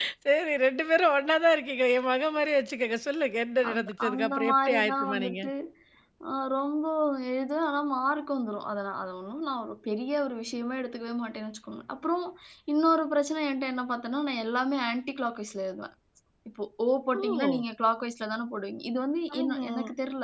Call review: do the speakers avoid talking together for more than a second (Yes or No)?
No